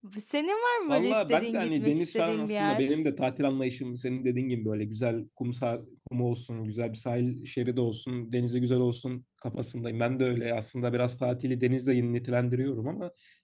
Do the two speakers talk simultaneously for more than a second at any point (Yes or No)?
Yes